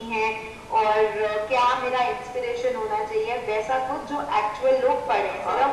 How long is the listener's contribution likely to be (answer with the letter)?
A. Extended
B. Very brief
A